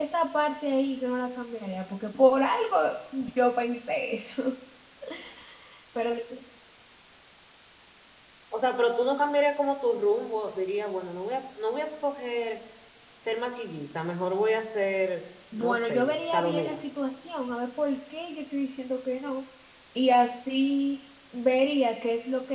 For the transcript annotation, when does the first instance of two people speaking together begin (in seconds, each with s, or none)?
15.5 s